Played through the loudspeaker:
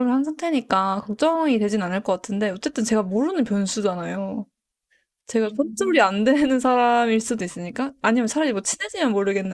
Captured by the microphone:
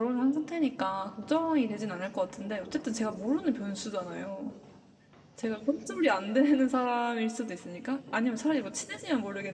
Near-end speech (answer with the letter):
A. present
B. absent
B